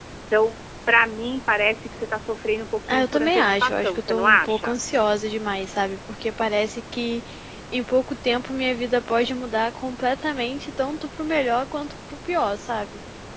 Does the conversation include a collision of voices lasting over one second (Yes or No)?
Yes